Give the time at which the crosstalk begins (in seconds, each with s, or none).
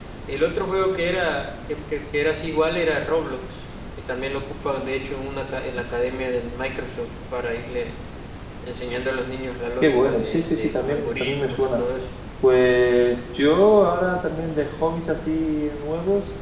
9.8 s